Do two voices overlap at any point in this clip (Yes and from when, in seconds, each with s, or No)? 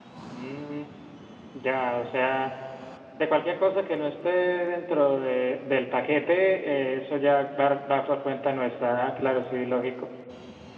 No